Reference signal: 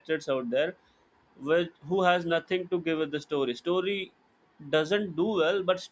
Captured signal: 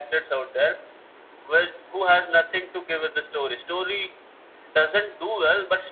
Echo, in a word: present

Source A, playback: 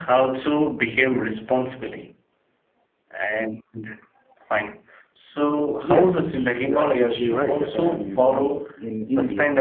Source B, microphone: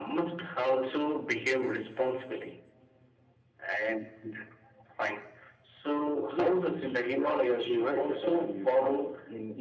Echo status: present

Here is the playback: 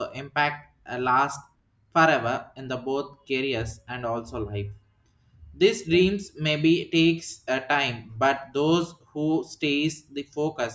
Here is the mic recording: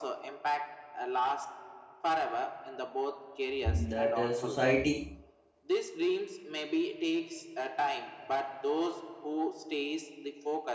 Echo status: present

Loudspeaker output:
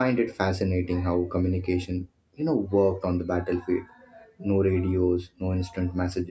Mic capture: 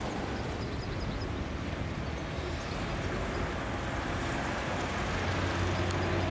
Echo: none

